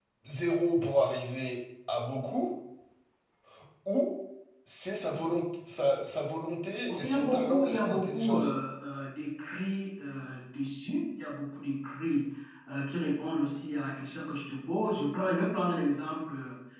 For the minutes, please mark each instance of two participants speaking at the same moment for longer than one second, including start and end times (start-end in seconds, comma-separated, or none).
6.9-8.5